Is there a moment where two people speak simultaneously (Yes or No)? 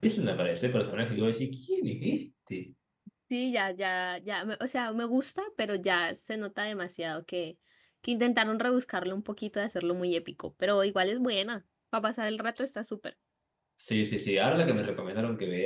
No